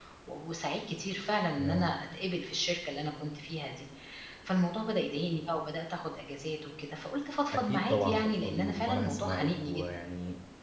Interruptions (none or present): present